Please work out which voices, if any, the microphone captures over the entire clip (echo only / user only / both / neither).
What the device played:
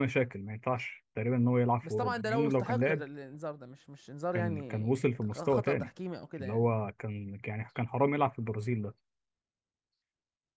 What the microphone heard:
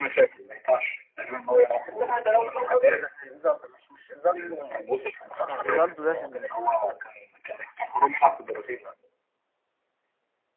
both